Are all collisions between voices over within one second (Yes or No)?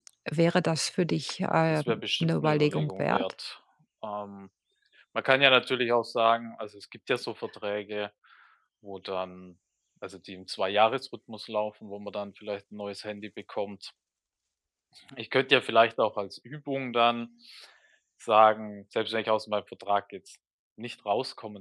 No